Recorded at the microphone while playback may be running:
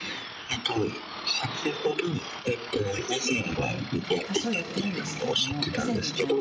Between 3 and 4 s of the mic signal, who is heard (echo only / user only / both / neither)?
echo only